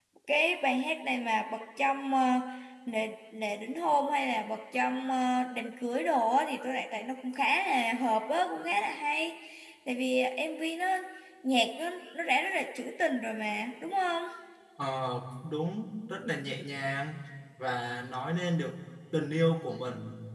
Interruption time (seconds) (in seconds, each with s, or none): none